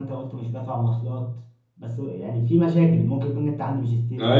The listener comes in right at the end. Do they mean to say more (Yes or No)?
Yes